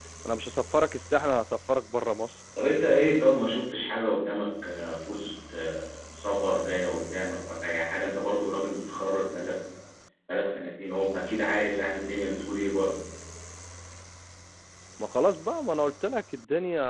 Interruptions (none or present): none